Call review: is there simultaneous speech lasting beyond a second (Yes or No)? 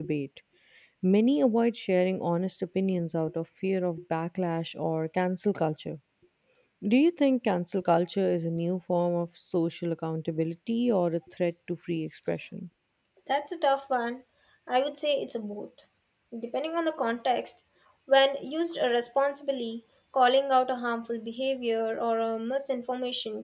No